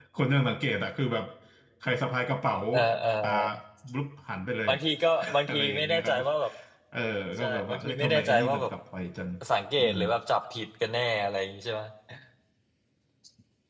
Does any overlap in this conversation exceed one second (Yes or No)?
Yes